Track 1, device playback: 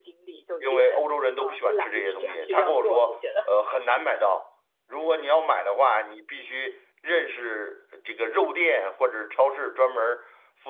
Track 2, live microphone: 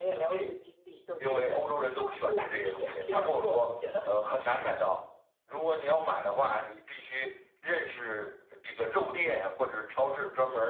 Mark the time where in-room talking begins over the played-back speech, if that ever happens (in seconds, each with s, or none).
none